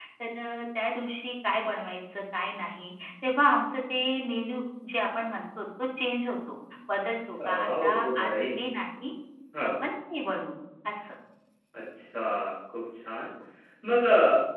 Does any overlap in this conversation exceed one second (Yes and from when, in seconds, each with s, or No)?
Yes, from 7.3 s